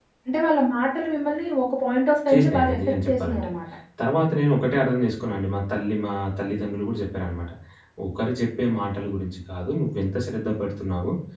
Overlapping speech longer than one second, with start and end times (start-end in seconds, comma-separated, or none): 2.3-3.5